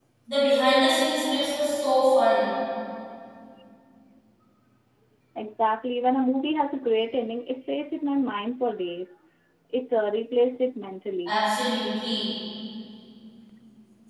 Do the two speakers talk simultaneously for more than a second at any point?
No

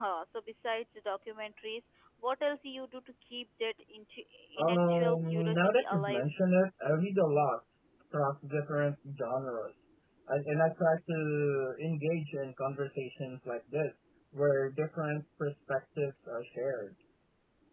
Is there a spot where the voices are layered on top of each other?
Yes, from 4.6 s

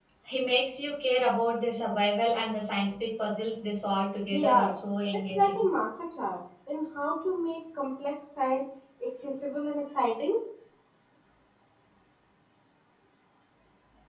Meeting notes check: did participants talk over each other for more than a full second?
No

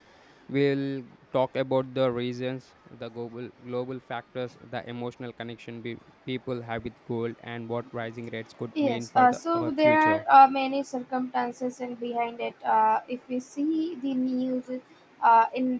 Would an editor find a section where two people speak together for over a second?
Yes, from 8.8 s

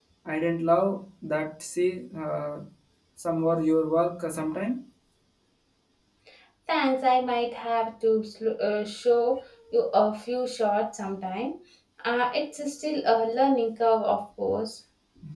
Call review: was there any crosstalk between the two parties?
No

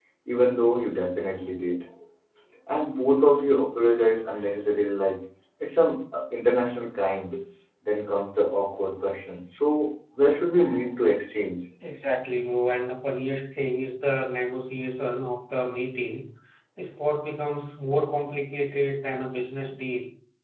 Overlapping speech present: No

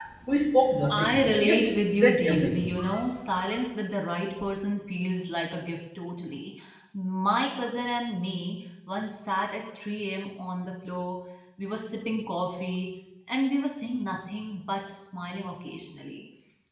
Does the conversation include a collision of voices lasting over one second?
Yes, from 1.0 s

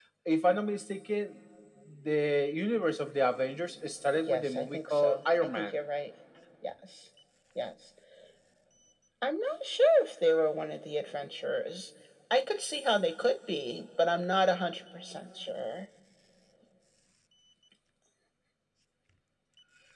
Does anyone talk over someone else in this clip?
Yes, from 4.3 s

